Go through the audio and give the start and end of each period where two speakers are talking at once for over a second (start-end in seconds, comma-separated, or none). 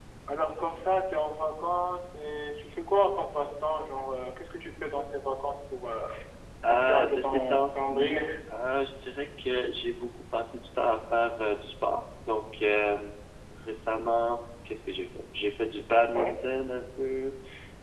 6.7-8.2